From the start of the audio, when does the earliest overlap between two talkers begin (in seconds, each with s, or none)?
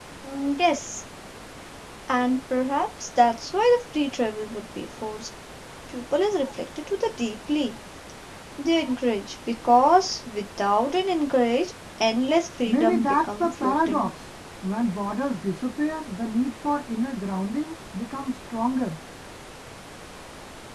12.7 s